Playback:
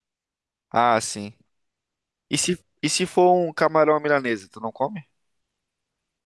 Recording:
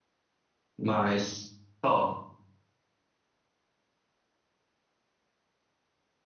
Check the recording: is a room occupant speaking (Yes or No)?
Yes